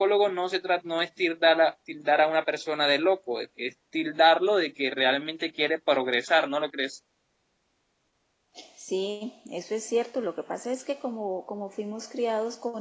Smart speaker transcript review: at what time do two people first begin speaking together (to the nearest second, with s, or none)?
none